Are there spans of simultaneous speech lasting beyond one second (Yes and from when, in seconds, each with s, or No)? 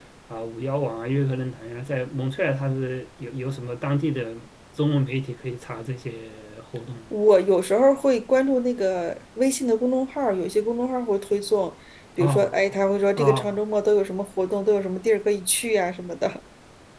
No